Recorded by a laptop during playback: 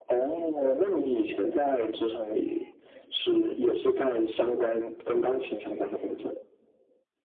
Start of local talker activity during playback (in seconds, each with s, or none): none